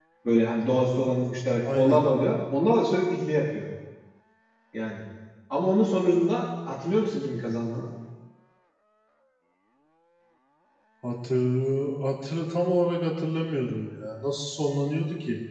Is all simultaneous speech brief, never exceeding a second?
Yes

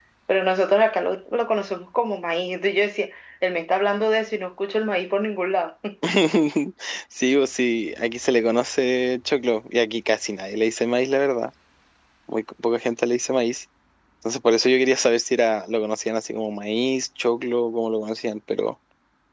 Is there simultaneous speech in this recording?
No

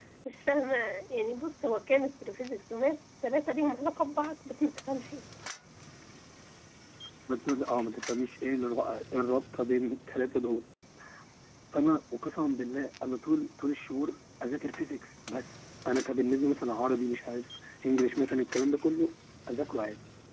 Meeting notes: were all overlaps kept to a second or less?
Yes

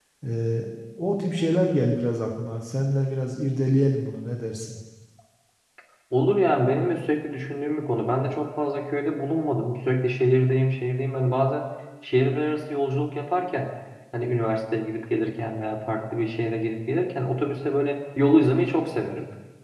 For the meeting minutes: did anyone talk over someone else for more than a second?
No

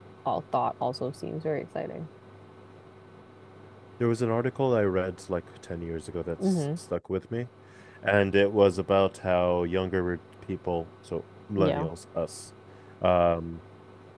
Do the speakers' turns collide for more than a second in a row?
No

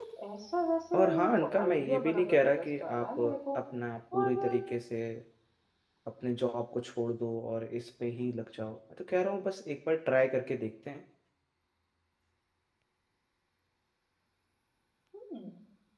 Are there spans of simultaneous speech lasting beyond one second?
Yes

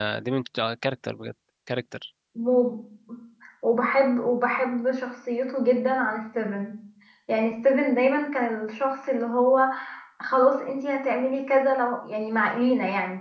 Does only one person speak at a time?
Yes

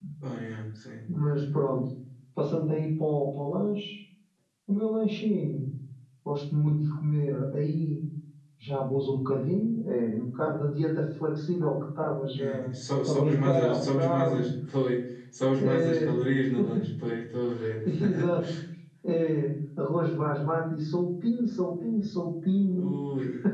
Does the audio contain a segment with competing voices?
Yes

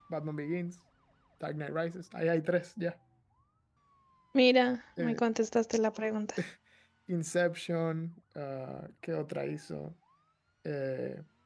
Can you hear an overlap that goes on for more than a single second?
No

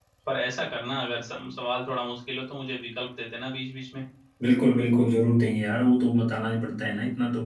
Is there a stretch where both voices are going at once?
No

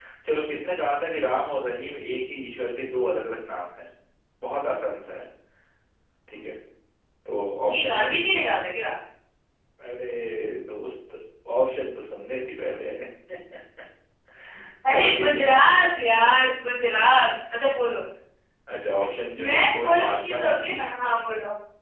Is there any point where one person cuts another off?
Yes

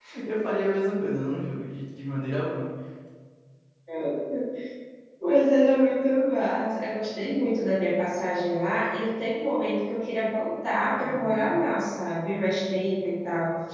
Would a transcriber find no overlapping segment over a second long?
Yes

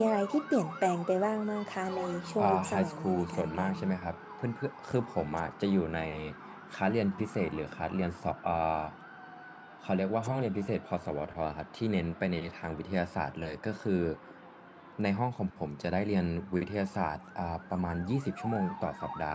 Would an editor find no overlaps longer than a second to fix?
No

